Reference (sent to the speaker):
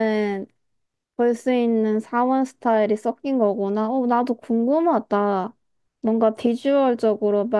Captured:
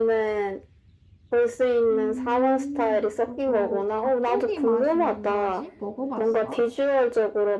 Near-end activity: present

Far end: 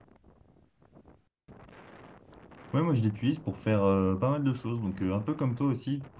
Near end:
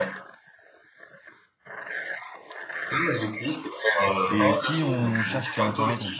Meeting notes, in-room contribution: present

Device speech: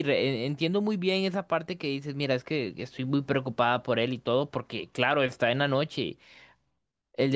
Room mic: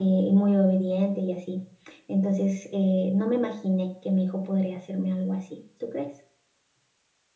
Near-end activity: present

